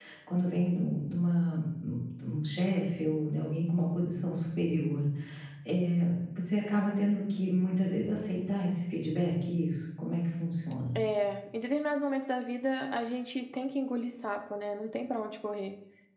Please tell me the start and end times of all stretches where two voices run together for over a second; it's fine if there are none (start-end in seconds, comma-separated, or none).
none